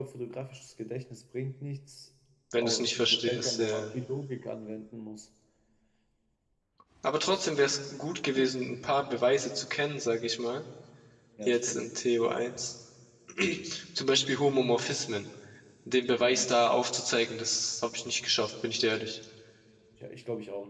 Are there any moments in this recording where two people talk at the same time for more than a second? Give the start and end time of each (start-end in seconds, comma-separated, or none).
2.6-3.9